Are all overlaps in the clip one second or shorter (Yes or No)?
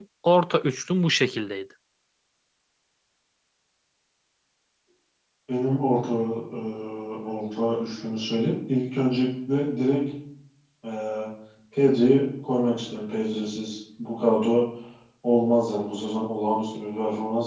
Yes